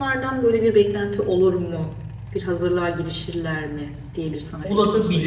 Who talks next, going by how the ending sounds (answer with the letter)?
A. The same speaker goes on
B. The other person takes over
B